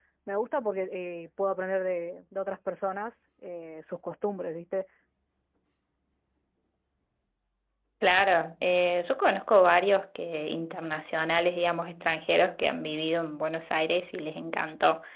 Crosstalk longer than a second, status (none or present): none